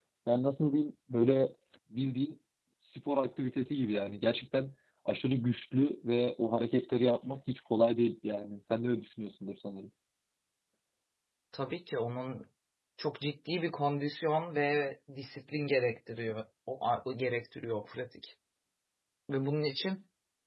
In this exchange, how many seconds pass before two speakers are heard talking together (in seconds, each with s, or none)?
none